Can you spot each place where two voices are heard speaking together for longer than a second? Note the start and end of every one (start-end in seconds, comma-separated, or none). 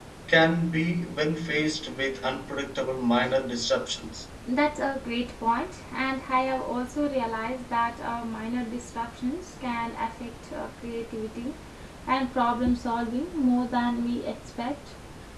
none